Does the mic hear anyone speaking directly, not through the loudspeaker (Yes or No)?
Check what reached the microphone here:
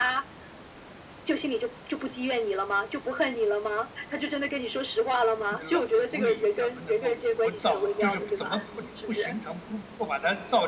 Yes